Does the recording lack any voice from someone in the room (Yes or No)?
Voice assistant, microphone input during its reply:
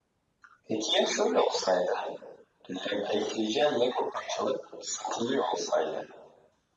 Yes